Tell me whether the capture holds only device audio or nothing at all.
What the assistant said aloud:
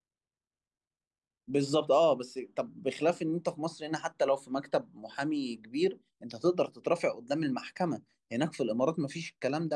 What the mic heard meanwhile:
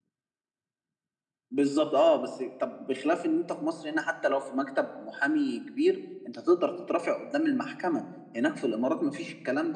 Yes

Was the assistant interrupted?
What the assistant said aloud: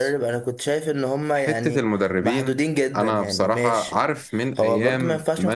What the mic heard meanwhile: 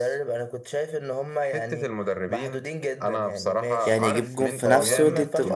Yes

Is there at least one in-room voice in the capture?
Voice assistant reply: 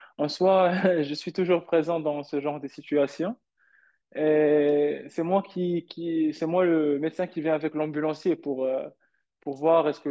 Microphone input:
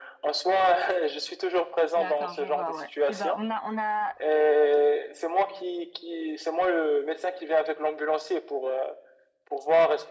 Yes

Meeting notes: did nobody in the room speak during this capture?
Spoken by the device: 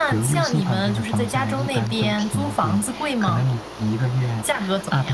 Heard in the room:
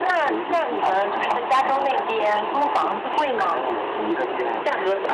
Yes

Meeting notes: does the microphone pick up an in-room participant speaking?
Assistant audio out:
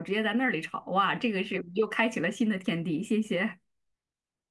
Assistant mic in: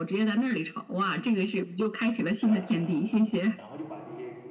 Yes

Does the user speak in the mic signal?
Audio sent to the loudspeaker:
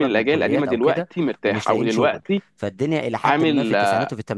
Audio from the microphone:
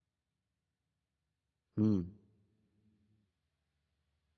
Yes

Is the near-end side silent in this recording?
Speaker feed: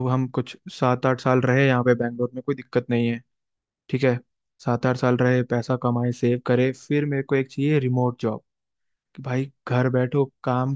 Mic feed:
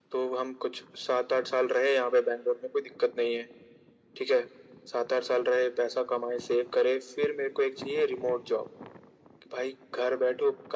Yes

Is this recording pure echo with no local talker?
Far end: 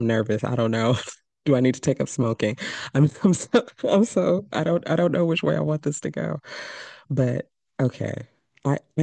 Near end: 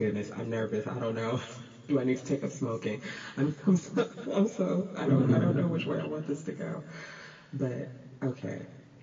No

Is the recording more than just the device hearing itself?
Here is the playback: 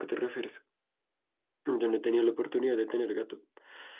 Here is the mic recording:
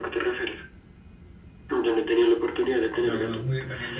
Yes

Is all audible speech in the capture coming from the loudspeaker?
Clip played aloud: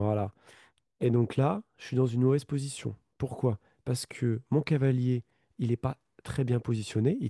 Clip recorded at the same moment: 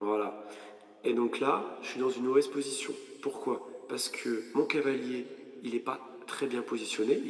Yes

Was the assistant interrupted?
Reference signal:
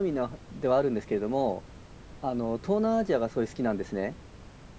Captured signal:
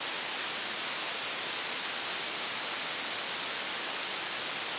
No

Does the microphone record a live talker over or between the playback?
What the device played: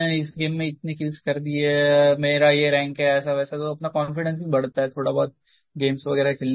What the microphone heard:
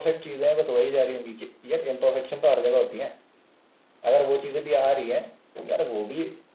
Yes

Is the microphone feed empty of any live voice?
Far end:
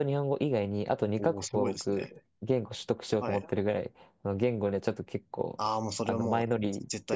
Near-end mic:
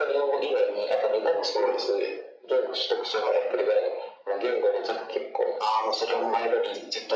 Yes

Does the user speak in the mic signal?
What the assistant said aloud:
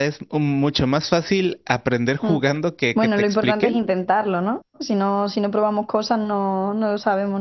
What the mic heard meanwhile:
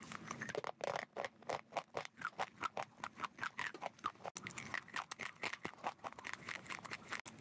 No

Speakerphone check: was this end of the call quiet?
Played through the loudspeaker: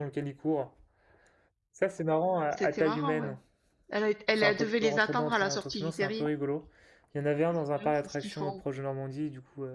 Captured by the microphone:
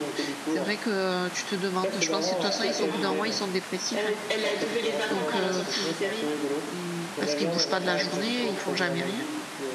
No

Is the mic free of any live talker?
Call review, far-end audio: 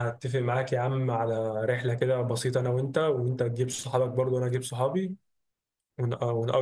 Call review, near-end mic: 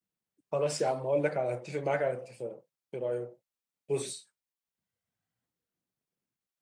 No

